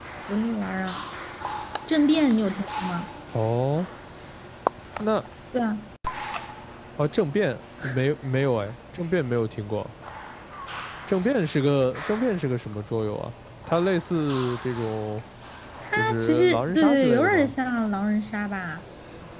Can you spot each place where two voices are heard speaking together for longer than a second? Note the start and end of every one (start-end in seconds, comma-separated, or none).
15.9-17.5